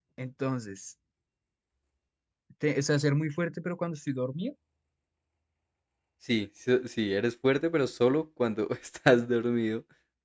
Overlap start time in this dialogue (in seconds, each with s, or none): none